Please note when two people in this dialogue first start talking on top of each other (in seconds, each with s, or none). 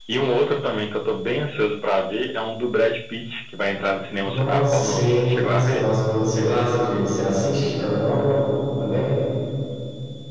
4.2 s